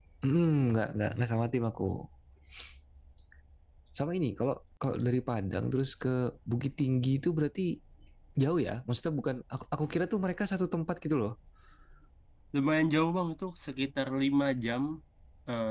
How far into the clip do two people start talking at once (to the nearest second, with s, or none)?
none